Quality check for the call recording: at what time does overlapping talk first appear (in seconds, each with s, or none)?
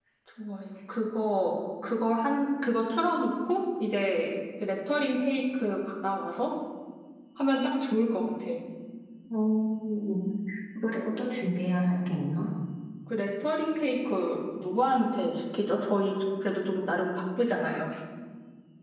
none